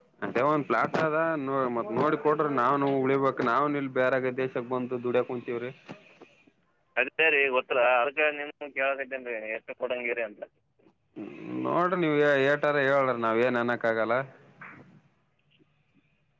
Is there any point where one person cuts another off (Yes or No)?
No